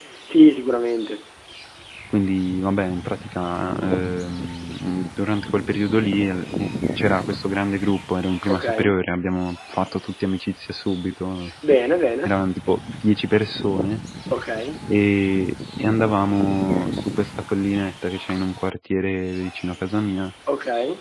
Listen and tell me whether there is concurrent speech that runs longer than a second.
No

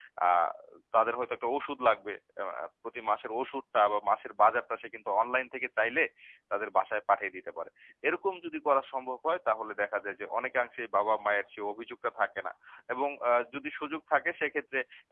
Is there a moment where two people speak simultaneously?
No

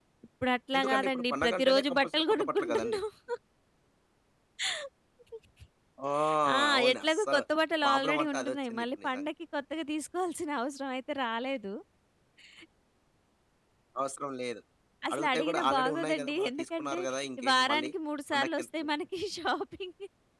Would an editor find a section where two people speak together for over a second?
Yes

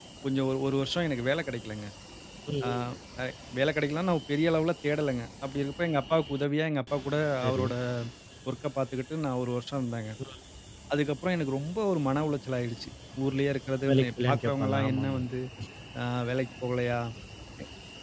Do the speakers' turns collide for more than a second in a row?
Yes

